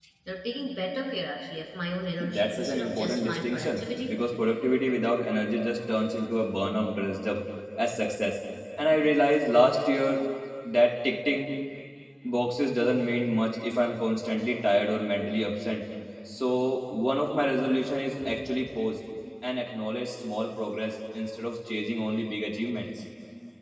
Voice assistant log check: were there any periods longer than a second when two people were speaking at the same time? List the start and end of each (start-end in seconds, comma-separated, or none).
2.2-4.2